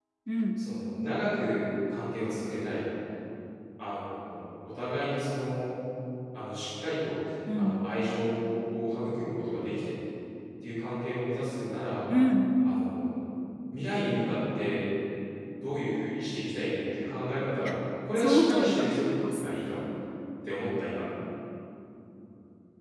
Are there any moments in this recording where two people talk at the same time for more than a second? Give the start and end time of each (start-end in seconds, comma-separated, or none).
18.2-19.5